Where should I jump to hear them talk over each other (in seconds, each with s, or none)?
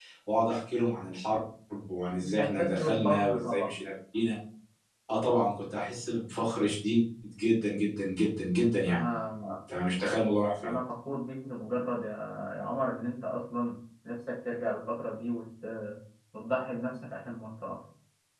2.2 s